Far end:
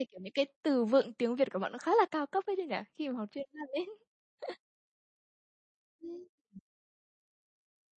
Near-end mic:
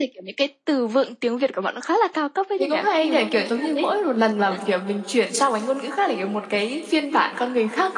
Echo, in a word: present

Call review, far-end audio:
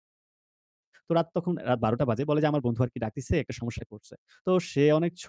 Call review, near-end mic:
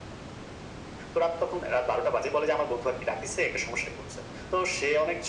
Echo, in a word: present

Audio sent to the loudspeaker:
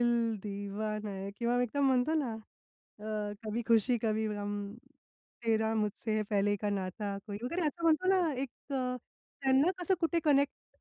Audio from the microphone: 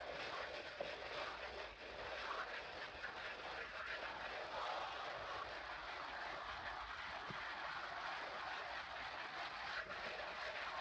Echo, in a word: none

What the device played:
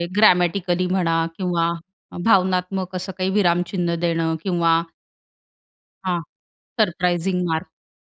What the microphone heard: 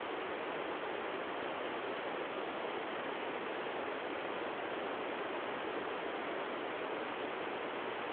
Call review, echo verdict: none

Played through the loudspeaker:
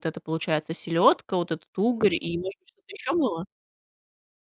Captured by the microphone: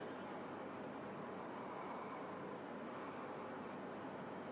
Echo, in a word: none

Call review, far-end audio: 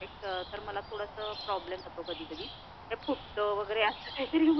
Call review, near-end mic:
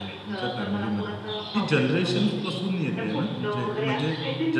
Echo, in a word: present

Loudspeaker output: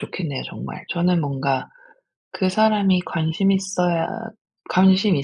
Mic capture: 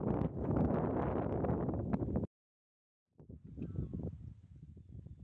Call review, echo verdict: none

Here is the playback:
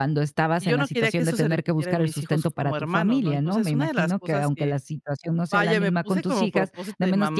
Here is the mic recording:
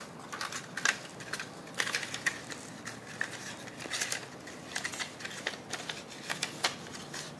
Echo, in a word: none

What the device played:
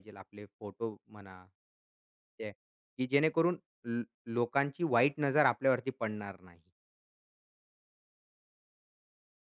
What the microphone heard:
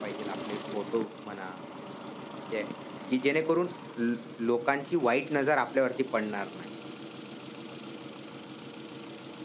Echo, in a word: present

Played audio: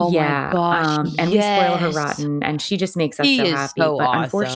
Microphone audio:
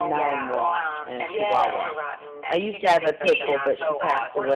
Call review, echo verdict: present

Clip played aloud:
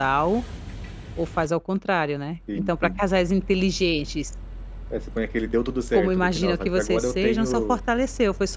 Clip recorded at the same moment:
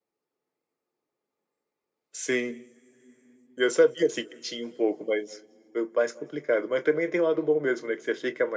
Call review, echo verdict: none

